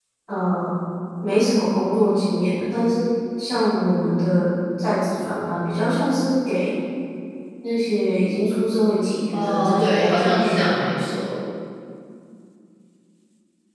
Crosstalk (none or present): present